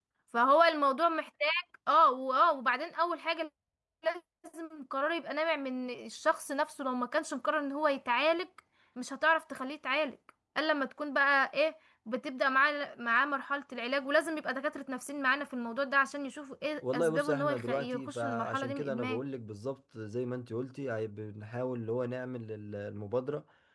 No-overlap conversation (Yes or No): No